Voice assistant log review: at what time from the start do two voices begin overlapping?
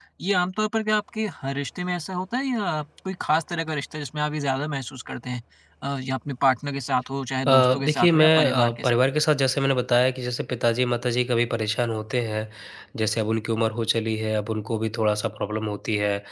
7.5 s

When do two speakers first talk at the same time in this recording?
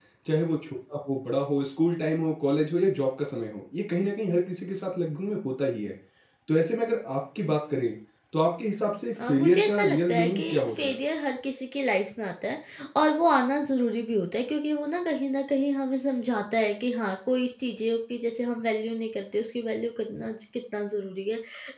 9.2 s

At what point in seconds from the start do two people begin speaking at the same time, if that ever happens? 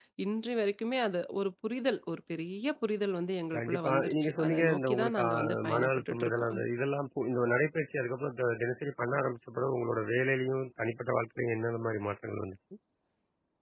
3.5 s

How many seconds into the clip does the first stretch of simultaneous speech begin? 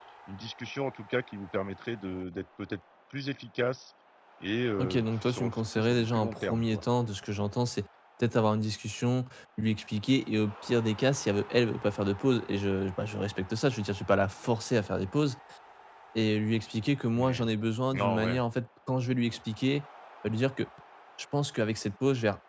4.8 s

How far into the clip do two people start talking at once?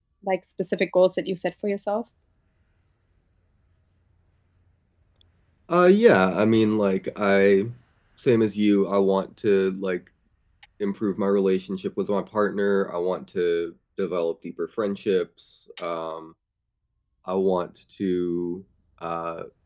none

